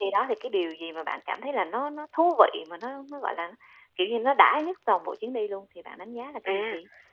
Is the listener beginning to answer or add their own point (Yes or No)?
Yes